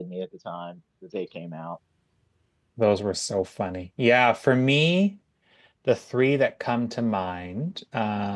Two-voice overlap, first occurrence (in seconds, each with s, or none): none